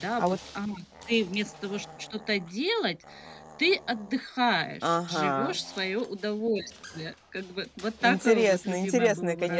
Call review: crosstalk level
present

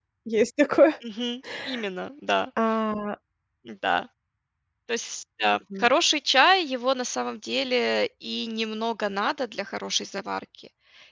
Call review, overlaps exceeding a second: none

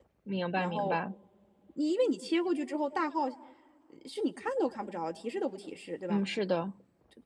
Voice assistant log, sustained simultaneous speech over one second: none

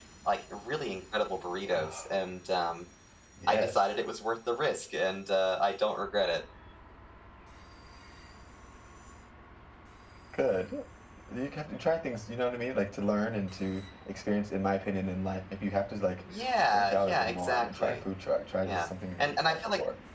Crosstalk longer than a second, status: present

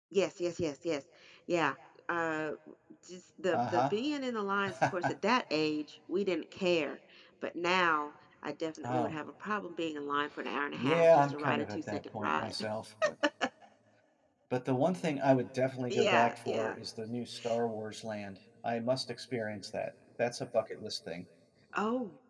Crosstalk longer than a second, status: present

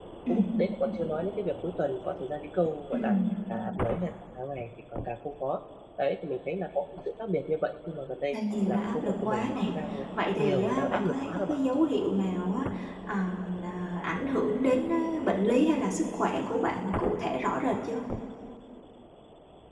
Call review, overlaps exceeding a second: present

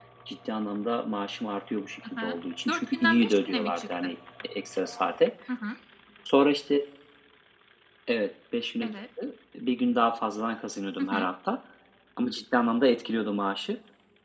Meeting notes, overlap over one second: present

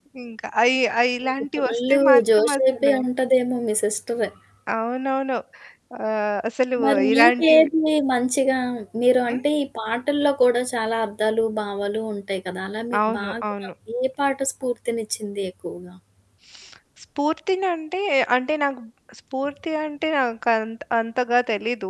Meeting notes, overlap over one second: present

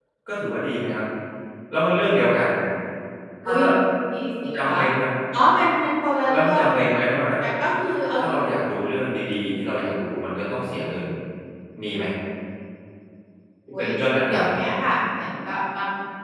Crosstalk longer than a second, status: none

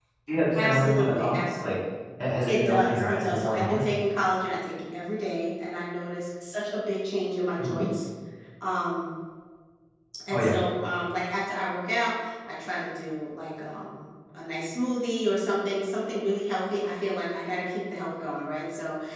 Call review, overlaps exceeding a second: present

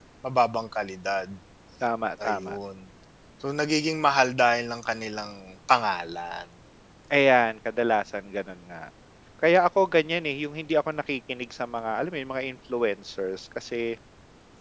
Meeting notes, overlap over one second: none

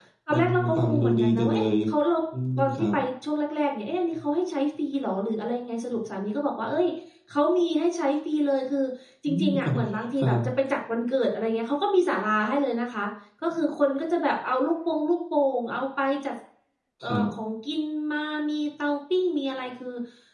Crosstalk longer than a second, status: present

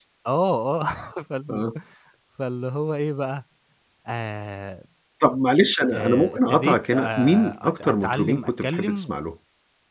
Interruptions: present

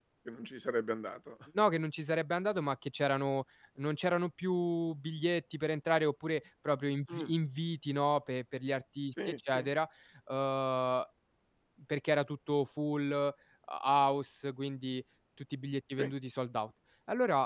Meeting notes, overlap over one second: none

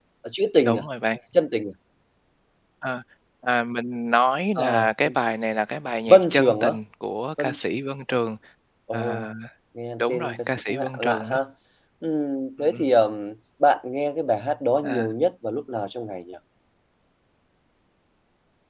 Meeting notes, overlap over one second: present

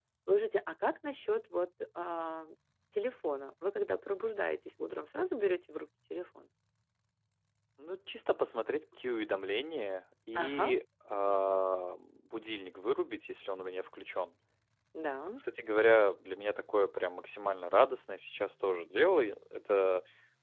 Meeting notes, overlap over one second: none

